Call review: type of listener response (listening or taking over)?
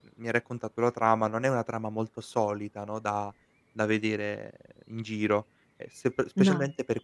listening